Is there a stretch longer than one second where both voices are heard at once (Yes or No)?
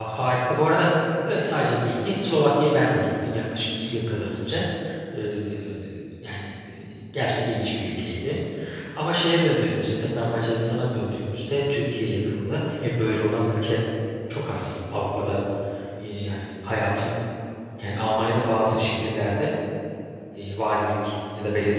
No